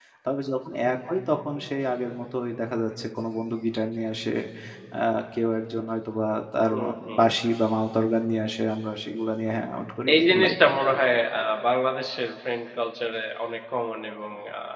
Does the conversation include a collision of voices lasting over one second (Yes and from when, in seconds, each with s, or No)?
No